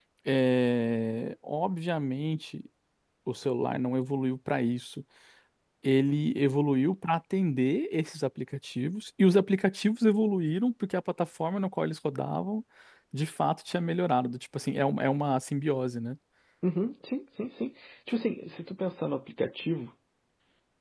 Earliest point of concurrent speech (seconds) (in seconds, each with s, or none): none